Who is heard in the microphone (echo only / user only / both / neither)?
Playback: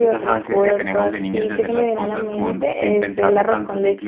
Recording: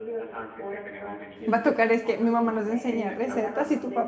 both